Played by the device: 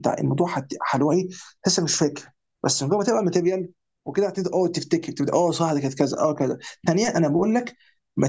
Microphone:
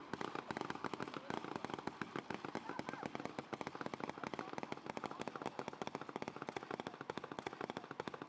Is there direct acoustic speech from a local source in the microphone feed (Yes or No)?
No